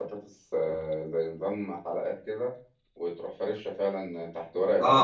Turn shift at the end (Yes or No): Yes